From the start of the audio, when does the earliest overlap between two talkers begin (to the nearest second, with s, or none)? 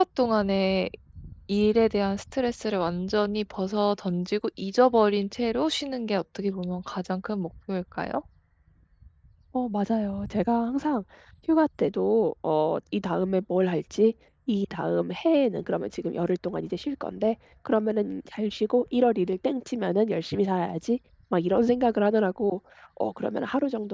none